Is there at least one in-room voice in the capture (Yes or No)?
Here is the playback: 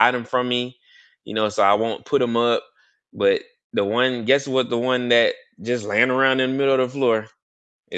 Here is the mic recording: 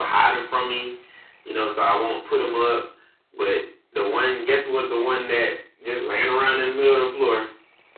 No